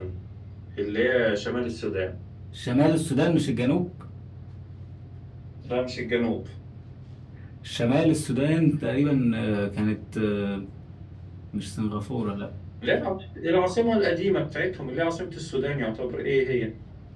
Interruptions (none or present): none